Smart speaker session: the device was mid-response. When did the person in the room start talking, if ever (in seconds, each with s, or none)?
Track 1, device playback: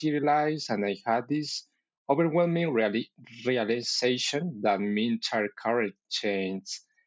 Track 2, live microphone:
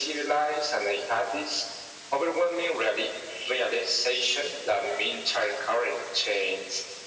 none